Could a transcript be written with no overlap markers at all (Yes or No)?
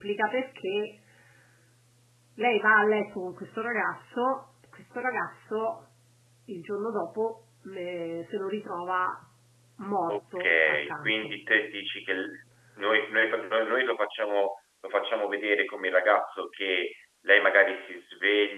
No